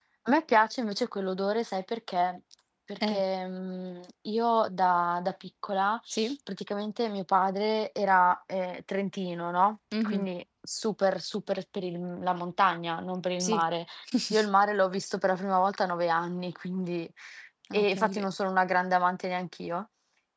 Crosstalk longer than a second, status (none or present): none